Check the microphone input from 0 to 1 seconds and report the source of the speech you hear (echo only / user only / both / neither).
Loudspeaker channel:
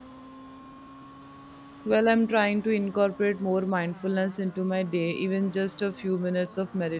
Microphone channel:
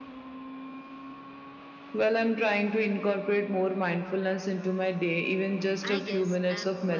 neither